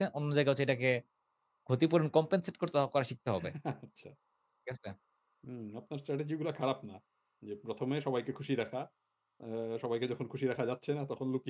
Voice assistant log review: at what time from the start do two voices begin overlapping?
none

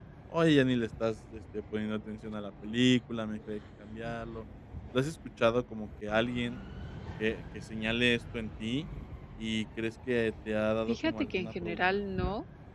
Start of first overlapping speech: 10.9 s

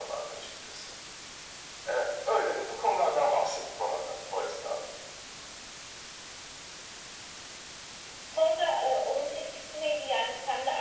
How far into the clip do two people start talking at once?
none

